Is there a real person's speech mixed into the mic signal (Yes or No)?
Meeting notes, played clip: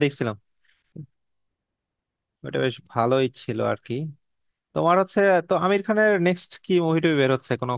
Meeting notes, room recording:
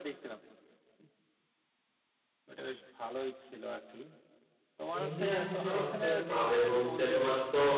Yes